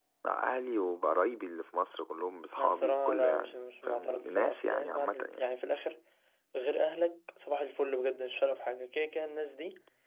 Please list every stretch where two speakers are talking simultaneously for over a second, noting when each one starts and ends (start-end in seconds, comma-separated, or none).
2.6-5.4